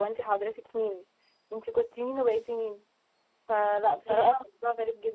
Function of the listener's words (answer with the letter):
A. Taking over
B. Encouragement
B